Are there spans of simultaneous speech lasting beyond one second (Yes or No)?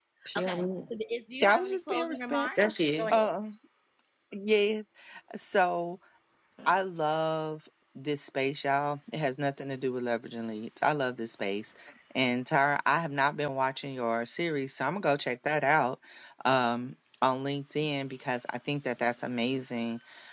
Yes